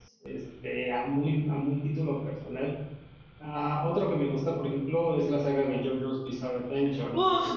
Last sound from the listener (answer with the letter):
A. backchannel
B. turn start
B